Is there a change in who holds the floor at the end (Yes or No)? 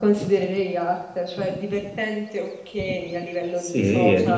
Yes